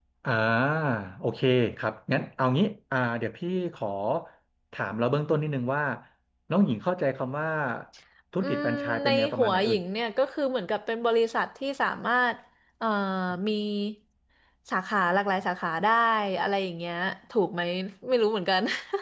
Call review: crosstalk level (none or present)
present